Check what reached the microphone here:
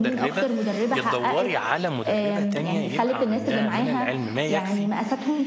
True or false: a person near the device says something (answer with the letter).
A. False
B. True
B